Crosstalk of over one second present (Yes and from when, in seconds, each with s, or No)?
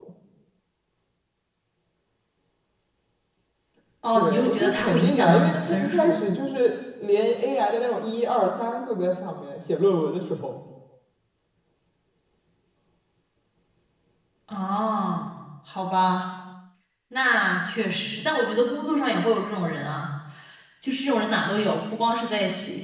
Yes, from 4.2 s